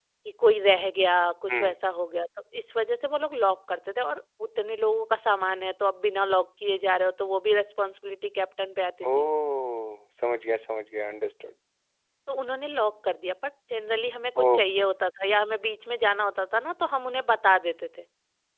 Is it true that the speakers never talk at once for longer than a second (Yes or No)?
Yes